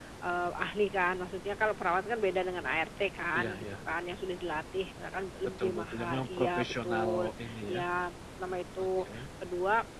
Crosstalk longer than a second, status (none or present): present